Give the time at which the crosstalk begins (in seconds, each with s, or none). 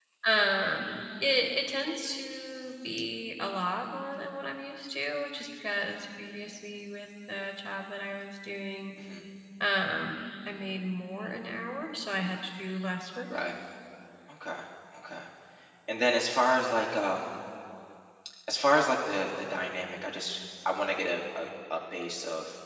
none